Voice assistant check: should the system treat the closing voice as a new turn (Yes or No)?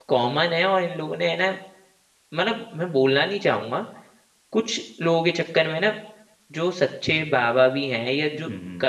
No